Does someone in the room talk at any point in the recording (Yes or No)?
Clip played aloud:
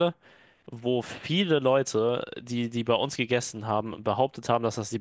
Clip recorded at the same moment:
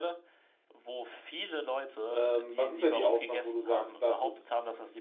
Yes